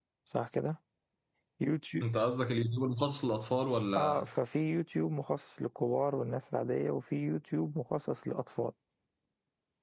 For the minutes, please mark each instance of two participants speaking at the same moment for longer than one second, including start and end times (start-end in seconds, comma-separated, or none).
none